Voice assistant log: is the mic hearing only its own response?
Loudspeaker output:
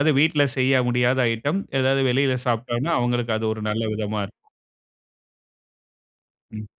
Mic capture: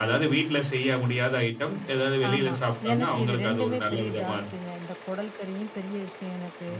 No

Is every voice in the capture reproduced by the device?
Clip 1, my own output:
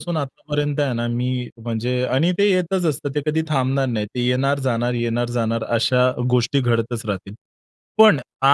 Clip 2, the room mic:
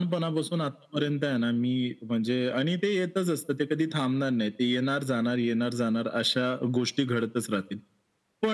Yes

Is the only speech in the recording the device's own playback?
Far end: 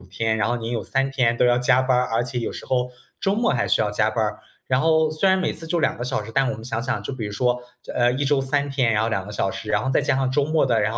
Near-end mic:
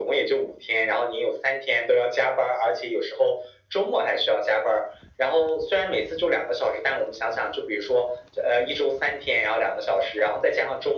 Yes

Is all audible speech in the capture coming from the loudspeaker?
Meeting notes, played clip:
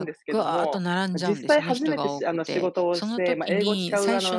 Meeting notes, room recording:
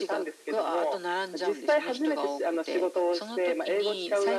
Yes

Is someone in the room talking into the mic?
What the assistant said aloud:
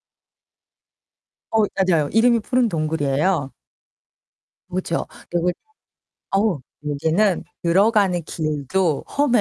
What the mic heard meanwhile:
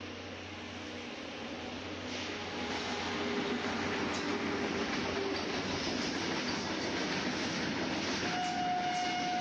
No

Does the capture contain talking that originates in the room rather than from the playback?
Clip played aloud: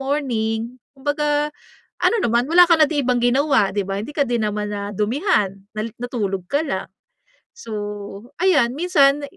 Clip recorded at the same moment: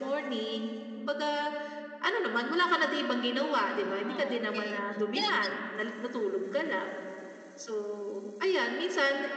Yes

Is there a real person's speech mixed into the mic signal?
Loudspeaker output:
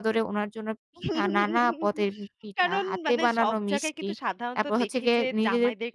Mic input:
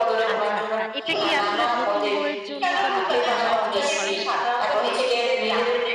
Yes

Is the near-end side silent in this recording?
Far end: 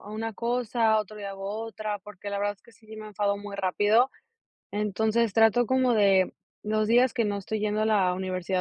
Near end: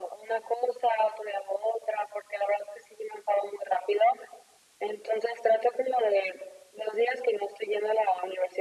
Yes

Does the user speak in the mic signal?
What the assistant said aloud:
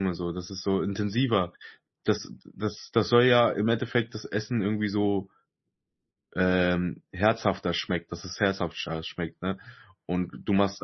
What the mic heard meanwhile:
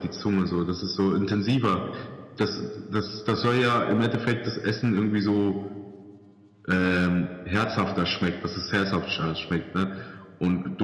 No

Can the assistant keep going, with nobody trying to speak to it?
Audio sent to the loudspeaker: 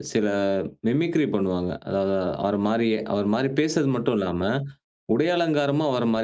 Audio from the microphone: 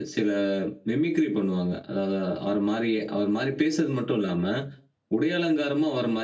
Yes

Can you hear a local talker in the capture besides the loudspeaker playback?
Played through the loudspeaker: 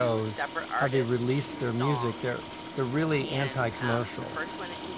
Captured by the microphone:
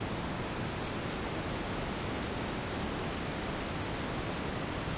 No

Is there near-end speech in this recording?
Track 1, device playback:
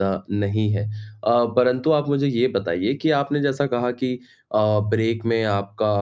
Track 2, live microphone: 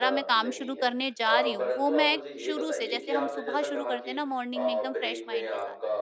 Yes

